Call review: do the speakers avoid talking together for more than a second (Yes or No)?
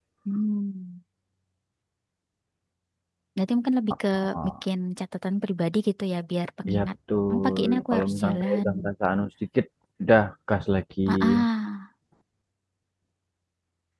No